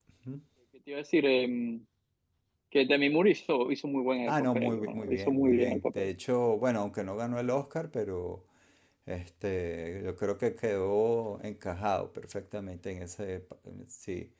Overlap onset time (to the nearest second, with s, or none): 4 s